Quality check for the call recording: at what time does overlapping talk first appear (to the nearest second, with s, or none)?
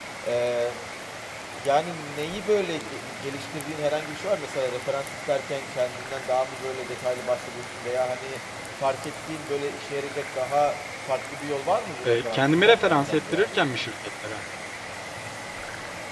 12 s